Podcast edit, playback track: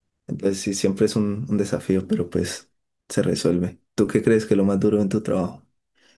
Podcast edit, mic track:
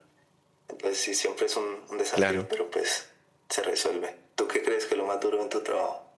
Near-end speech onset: 2.1 s

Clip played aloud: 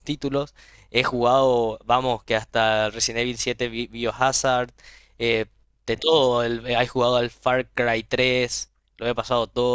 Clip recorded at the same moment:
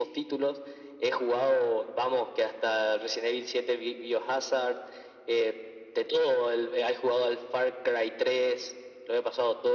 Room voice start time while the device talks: none

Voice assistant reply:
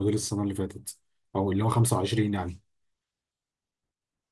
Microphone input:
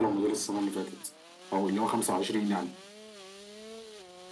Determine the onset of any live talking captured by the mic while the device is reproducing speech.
none

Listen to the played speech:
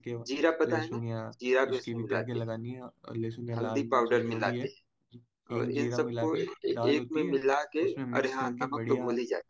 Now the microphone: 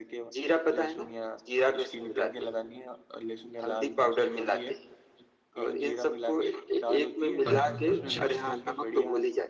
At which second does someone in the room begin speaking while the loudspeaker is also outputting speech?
7.5 s

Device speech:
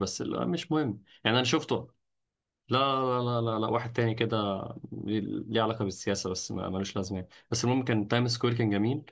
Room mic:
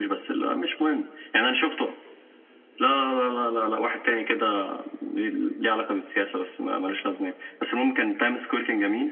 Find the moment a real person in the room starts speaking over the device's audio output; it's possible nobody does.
none

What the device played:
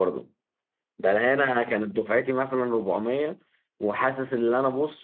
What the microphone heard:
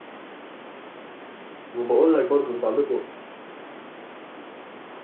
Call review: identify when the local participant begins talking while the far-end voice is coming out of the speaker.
1.7 s

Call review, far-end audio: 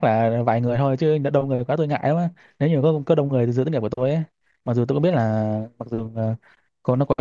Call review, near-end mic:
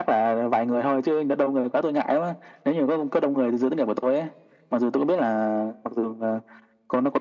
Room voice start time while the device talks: none

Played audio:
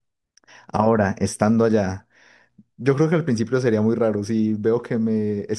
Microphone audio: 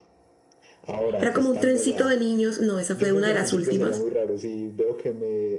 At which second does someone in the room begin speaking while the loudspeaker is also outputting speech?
1.2 s

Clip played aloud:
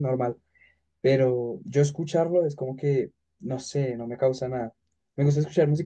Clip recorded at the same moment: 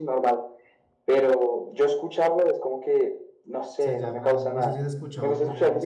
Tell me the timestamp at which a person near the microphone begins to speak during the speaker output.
3.8 s

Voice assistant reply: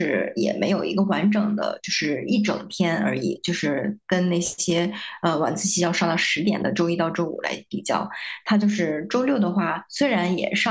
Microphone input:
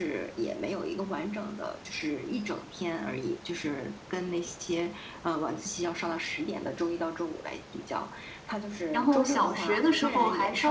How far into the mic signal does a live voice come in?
8.9 s

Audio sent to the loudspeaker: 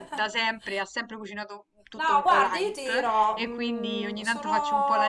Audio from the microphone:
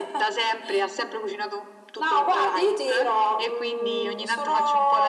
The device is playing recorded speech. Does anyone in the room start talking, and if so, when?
none

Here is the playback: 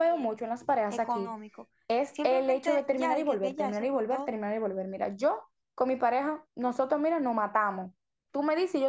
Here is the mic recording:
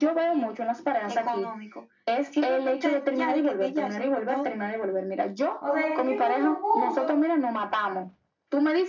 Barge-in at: 5.6 s

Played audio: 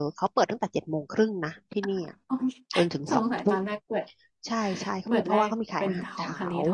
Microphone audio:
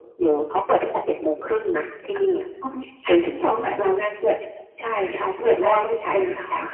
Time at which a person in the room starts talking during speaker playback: none

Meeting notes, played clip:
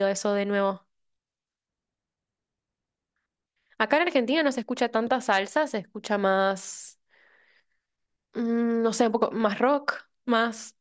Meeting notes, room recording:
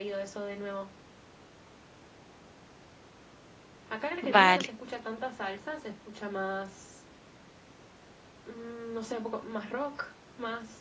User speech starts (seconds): 4.2 s

